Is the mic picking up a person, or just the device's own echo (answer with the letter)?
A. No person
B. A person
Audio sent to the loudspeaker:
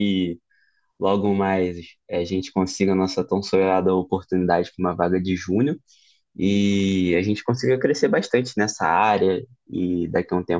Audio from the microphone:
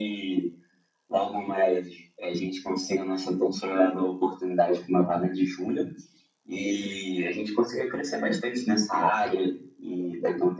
A